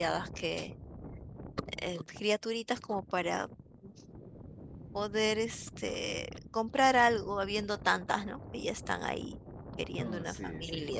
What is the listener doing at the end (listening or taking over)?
taking over